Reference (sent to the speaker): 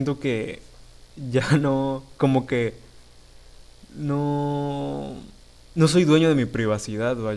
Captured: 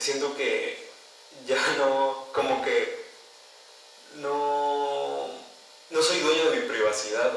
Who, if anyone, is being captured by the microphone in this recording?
echo only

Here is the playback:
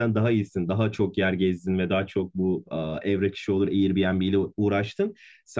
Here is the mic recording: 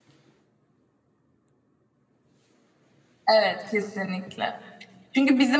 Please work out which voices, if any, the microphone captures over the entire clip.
user only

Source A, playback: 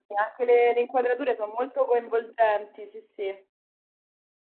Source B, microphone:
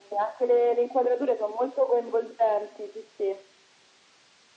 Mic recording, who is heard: echo only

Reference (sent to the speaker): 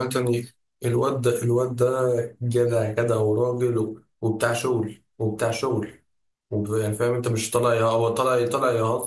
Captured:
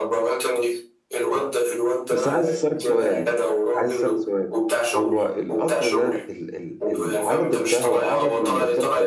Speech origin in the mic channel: both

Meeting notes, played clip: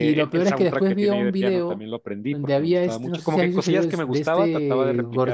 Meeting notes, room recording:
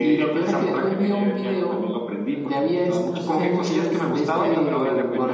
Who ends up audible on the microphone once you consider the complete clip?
both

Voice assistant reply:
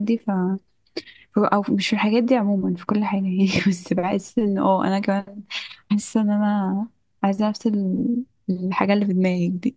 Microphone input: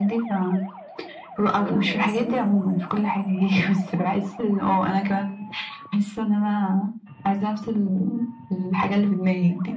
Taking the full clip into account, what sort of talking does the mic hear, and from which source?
both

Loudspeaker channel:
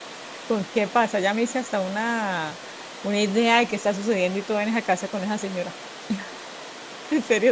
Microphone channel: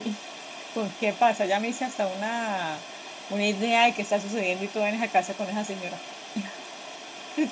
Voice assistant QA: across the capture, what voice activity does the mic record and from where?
echo only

